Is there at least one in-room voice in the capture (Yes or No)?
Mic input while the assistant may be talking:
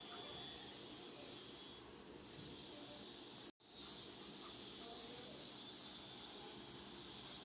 No